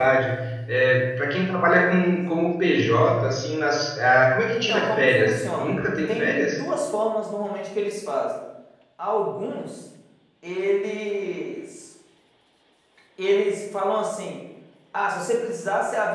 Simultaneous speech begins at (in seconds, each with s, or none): 4.5 s